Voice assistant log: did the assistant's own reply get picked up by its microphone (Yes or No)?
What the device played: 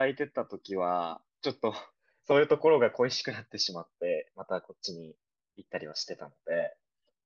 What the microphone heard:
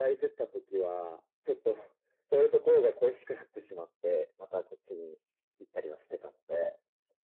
Yes